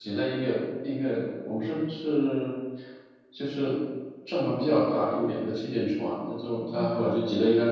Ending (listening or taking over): listening